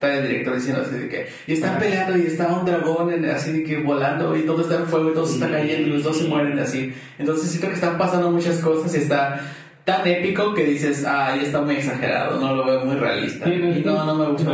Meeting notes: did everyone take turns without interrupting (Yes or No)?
No